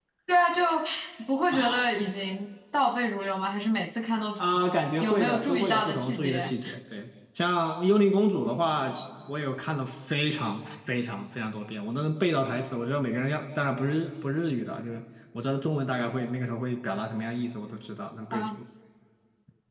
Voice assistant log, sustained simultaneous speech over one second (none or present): present